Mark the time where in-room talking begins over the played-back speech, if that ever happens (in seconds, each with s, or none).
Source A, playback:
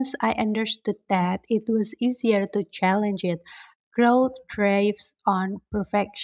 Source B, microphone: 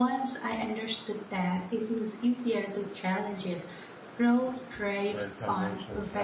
5.0 s